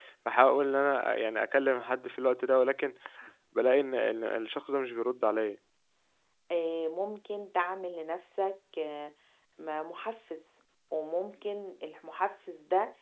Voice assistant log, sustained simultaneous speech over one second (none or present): none